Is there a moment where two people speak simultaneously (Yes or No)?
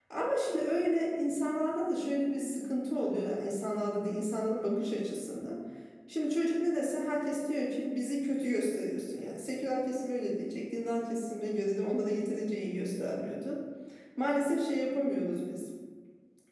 No